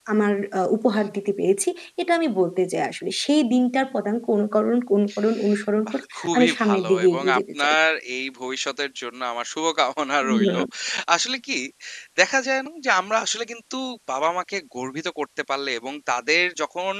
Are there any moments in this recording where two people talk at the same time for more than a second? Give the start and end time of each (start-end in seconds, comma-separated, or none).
5.9-7.7